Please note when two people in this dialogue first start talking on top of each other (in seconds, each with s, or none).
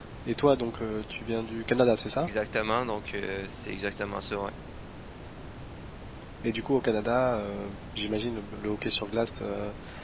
none